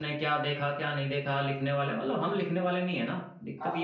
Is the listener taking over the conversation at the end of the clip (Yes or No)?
Yes